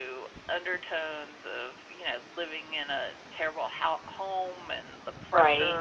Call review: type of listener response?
listening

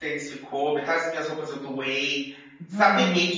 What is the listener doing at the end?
listening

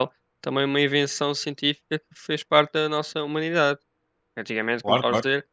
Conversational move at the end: listening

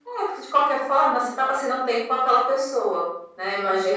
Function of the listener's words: listening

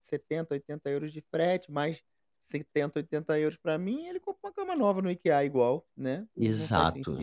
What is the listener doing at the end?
taking over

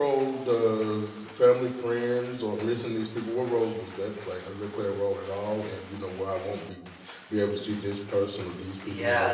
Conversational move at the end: taking over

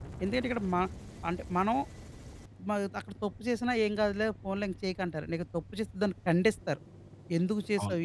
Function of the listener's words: listening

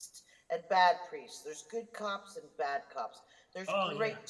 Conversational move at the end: listening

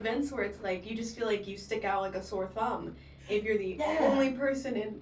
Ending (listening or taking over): listening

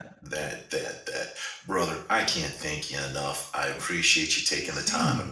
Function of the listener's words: listening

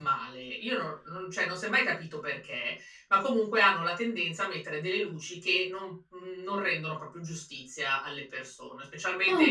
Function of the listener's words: listening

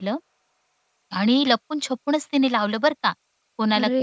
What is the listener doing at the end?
listening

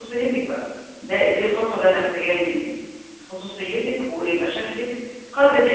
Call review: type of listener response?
listening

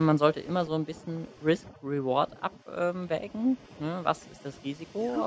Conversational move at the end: listening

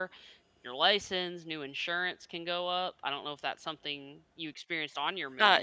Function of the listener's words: taking over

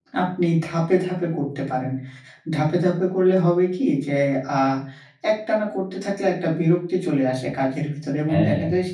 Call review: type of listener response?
listening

